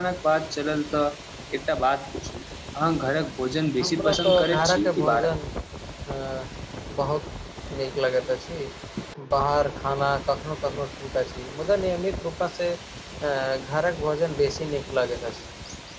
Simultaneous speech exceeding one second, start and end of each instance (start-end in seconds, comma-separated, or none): 3.8-5.3